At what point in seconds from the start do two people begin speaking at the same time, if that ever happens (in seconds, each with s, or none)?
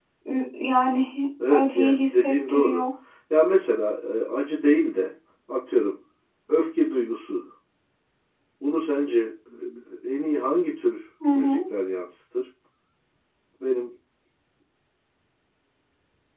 1.5 s